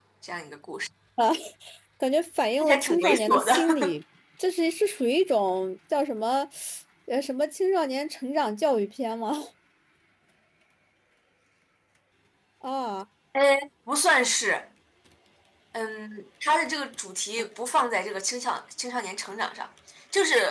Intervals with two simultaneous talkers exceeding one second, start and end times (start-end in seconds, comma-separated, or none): 2.6-3.9